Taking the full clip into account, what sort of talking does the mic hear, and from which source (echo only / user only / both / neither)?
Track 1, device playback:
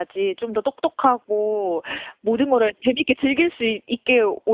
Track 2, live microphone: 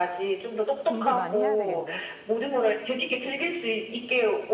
both